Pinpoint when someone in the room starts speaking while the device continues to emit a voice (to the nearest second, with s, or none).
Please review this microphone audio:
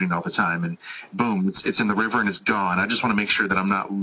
none